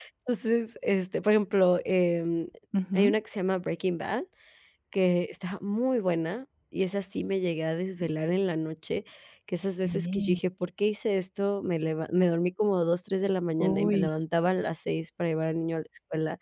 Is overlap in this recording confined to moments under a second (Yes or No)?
Yes